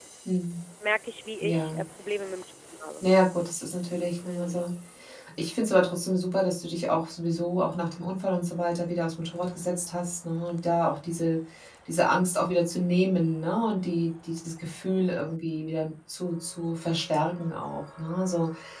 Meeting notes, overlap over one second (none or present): none